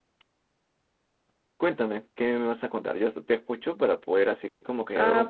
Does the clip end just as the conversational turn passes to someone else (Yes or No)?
Yes